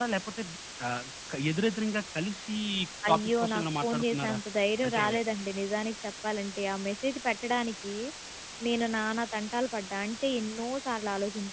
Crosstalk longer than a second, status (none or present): present